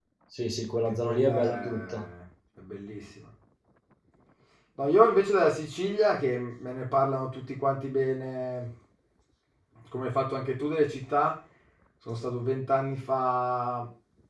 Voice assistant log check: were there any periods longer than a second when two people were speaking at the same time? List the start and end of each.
0.8-2.0

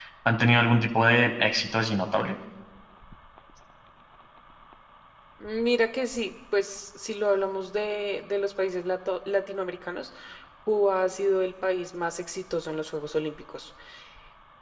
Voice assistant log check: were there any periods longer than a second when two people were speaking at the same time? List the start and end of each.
none

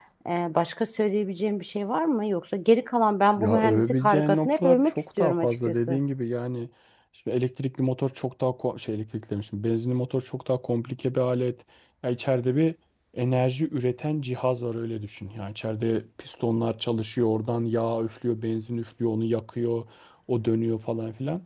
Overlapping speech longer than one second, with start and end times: 3.4-6.0

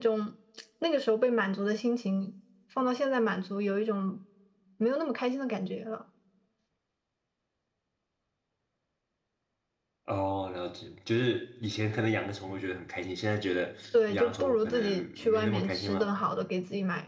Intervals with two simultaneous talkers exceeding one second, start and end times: 14.1-16.1

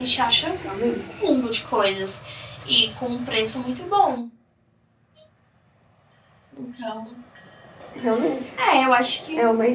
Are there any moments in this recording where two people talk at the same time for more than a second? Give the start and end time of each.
none

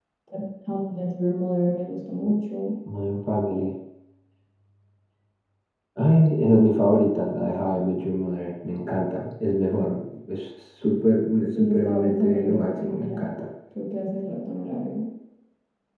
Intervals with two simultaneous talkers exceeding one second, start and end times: 11.5-13.3

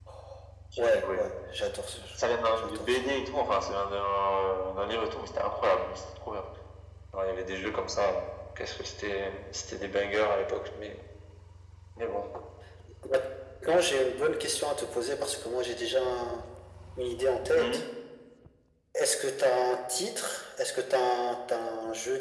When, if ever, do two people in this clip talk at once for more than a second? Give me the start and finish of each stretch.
none

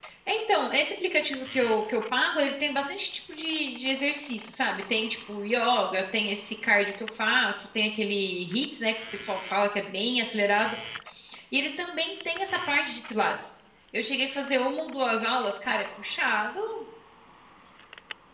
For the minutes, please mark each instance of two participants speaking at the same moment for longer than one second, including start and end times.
none

